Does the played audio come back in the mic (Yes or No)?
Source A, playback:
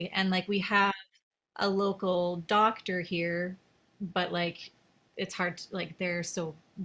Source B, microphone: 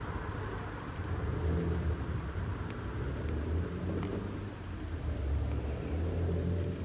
No